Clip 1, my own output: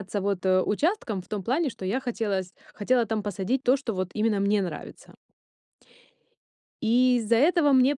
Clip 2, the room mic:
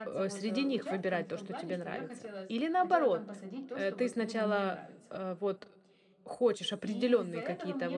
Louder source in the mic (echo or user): user